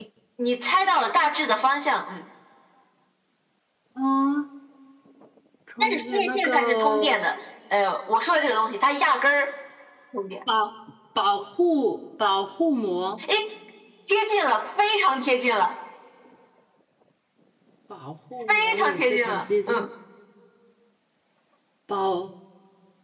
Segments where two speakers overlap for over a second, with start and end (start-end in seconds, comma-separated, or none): 5.8-7.2, 18.5-19.9